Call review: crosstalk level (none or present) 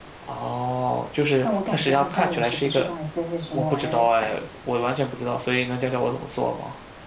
present